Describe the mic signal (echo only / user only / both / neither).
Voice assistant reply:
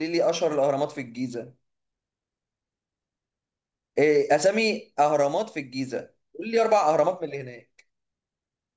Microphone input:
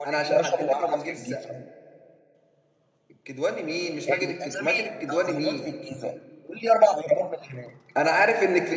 both